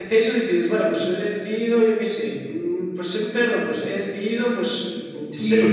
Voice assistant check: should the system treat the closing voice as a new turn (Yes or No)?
Yes